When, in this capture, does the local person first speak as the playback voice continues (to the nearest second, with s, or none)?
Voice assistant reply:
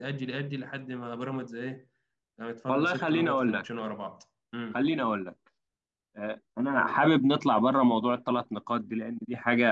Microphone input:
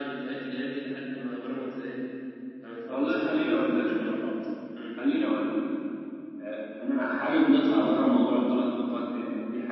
none